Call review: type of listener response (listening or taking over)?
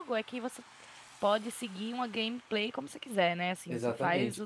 taking over